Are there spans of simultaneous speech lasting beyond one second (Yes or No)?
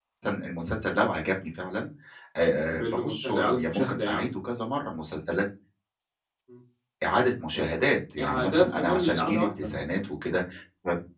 Yes